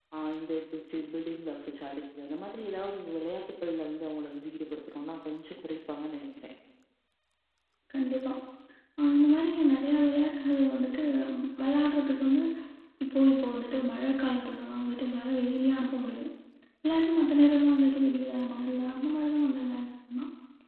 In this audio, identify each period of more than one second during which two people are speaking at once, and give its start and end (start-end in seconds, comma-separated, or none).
none